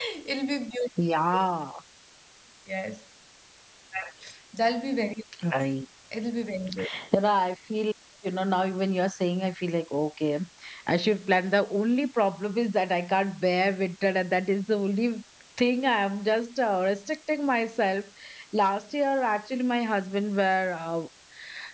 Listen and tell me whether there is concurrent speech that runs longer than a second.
No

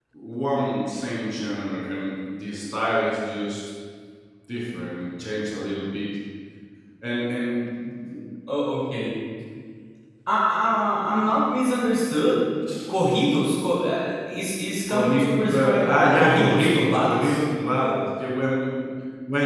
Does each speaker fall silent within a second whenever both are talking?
No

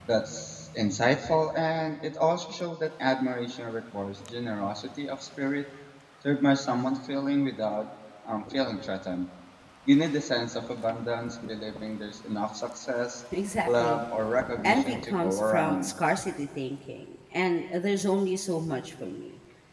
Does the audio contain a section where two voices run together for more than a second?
Yes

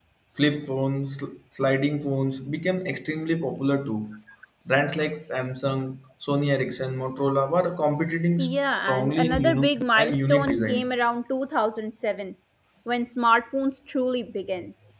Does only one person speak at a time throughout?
No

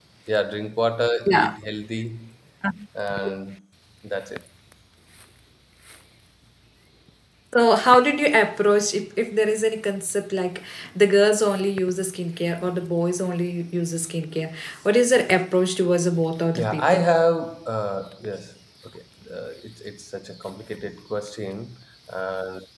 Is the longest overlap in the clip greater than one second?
No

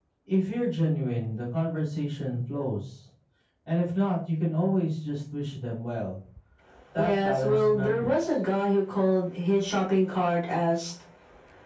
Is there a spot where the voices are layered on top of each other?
Yes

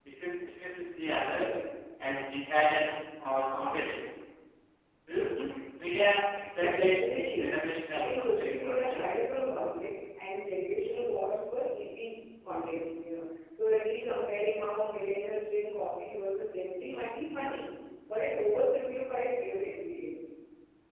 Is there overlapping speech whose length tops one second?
Yes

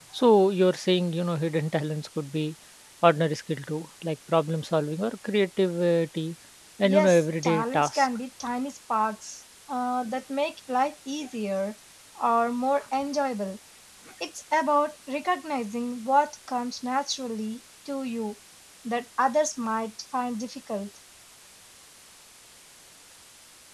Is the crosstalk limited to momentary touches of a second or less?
No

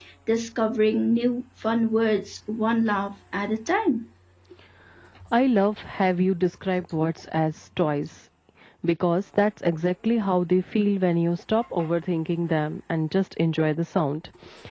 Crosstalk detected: No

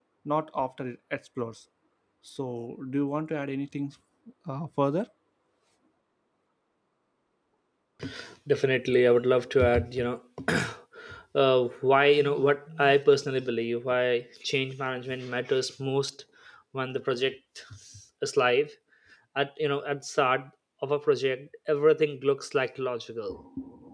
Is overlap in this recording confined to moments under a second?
Yes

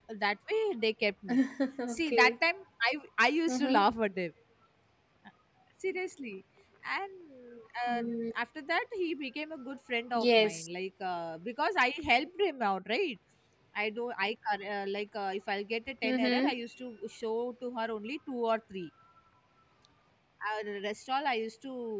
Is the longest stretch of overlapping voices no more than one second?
Yes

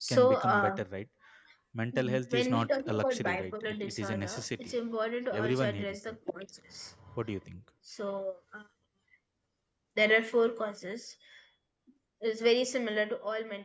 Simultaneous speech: Yes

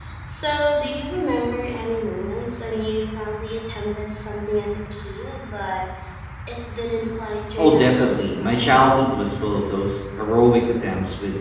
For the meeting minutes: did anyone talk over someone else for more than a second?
Yes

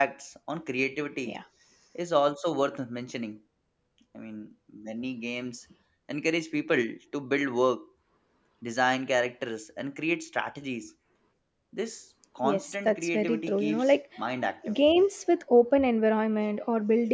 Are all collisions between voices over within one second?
No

